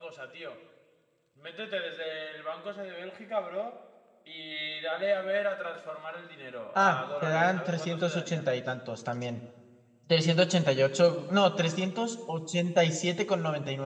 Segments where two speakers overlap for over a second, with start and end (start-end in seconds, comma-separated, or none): 6.8-8.5